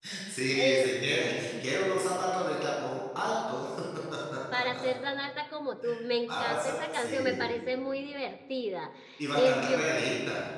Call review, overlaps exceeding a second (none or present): present